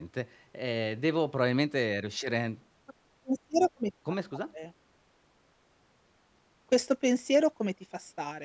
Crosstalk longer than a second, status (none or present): none